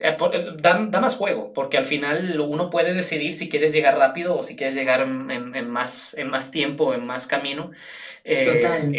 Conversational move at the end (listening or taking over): listening